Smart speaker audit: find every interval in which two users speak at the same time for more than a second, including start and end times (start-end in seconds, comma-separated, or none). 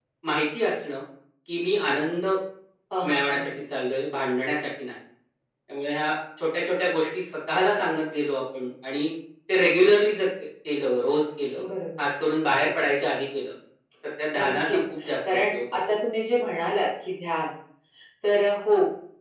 14.3-15.8